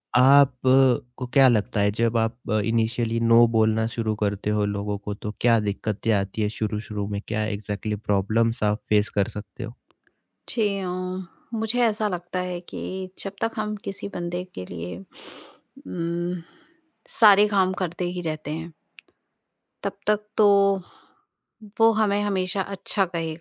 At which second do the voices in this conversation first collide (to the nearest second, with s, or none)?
none